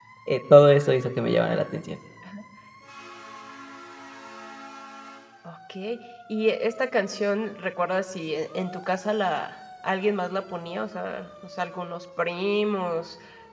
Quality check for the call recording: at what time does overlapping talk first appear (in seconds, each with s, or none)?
none